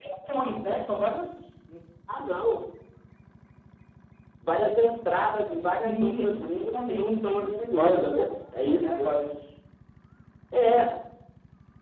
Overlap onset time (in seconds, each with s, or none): 5.8 s